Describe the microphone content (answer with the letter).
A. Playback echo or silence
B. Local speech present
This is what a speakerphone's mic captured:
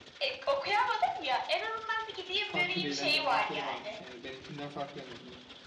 B